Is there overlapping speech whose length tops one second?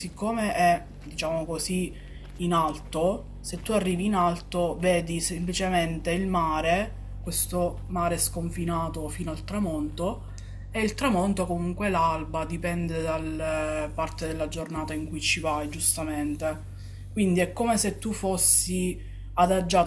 No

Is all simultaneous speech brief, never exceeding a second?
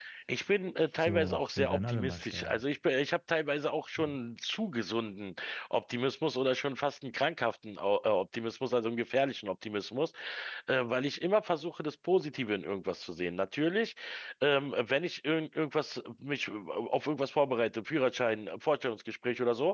No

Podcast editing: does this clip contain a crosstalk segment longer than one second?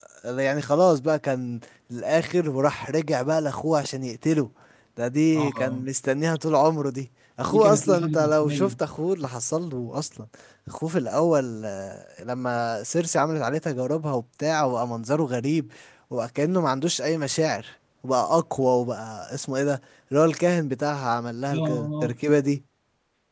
Yes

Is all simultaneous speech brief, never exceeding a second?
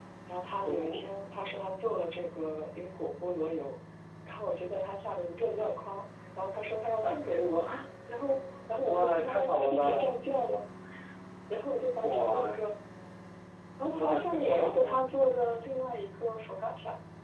No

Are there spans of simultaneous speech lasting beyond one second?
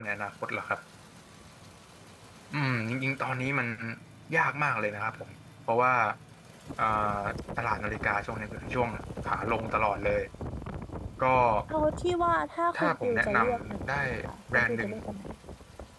Yes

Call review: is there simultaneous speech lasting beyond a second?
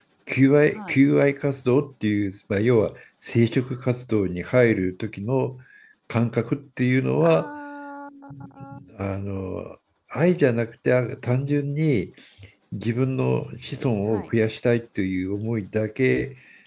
No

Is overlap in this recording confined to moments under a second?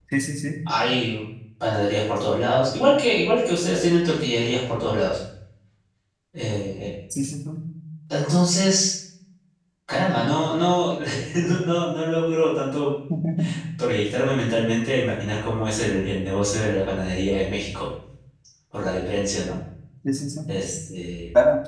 Yes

